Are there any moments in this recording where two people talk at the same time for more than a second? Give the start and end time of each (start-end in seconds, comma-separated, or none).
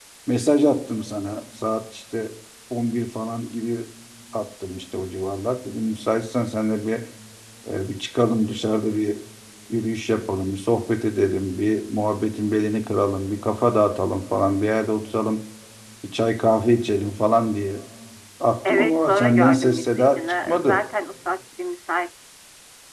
18.6-20.9